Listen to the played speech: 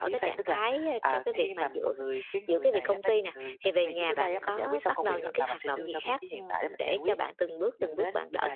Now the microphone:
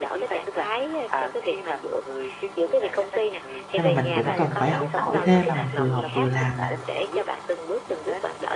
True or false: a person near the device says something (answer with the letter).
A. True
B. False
A